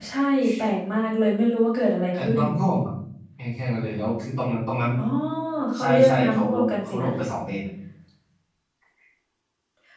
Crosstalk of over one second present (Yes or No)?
Yes